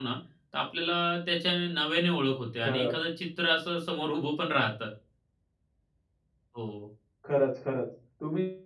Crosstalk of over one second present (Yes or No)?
No